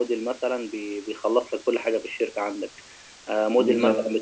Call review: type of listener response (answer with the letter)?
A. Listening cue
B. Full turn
A